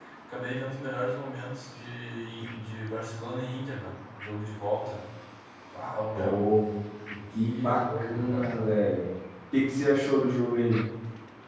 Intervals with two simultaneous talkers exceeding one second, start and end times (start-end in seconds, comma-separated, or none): 7.4-8.6